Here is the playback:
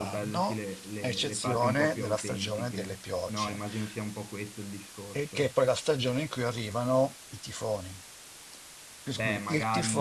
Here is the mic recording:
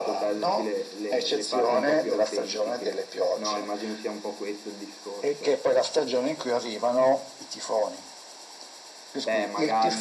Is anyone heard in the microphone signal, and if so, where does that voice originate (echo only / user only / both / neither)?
echo only